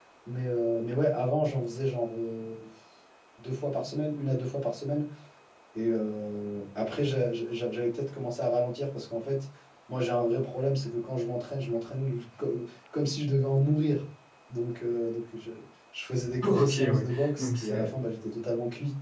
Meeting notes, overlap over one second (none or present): present